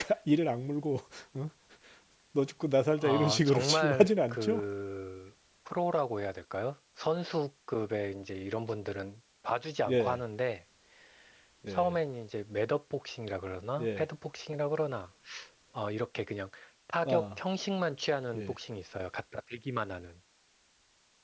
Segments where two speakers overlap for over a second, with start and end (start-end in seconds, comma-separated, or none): 3.0-4.6